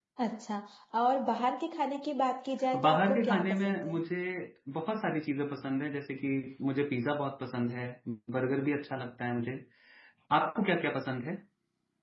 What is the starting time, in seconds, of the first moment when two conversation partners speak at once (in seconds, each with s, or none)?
2.7 s